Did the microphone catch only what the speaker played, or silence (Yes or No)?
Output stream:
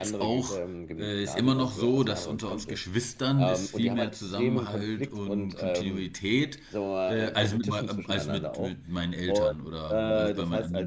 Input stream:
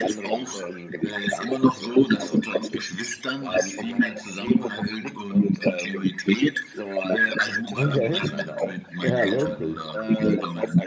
No